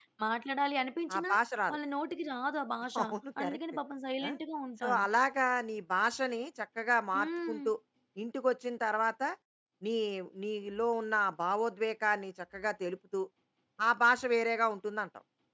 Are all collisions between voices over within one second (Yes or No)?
Yes